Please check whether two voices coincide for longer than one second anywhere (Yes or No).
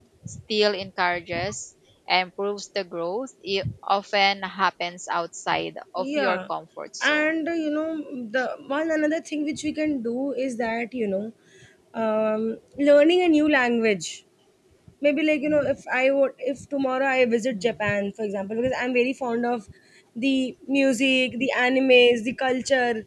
No